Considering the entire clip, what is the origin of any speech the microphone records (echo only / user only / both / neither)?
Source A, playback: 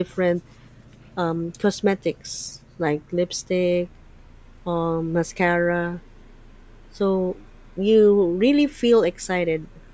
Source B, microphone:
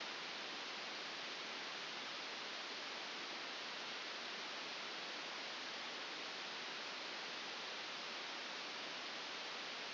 neither